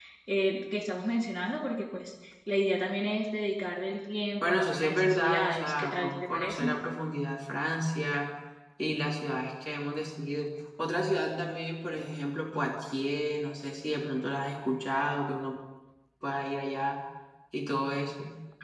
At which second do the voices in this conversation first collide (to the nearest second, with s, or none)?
4 s